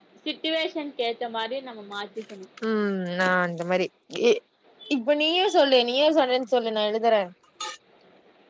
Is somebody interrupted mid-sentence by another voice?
No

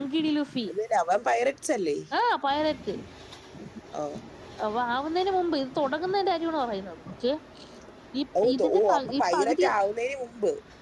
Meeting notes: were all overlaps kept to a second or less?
No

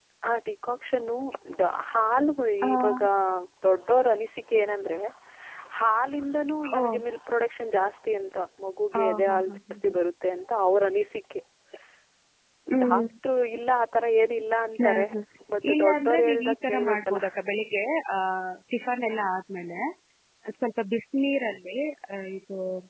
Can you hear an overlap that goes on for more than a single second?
Yes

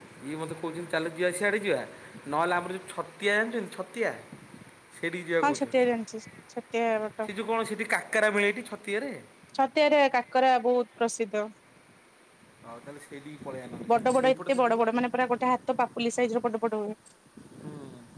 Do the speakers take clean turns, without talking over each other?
No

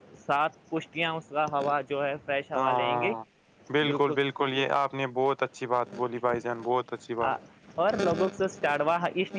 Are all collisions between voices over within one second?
Yes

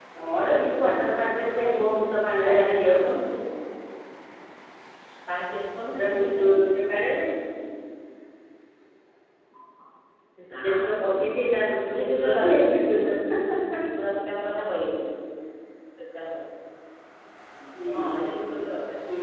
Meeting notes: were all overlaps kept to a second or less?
No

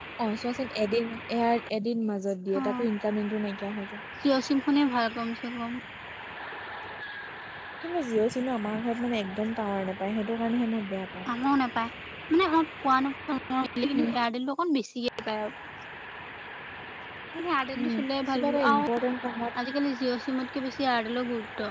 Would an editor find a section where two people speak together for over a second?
No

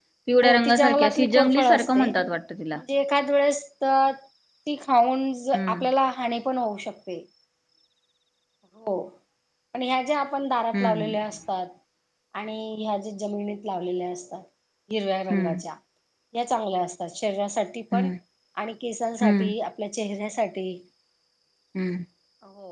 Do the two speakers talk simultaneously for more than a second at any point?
Yes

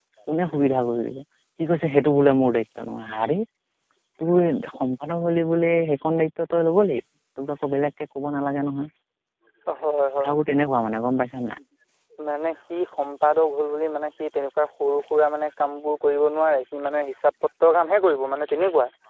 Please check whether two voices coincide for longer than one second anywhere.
No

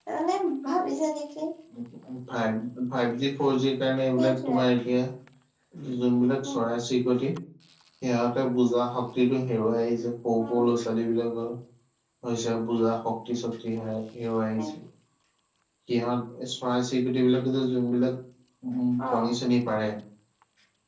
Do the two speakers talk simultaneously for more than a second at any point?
No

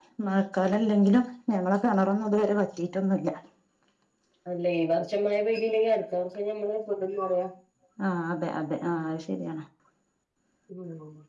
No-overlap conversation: Yes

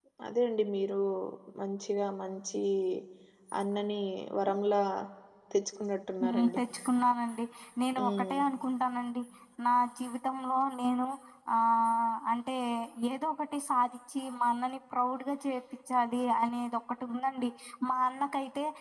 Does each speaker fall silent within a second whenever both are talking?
Yes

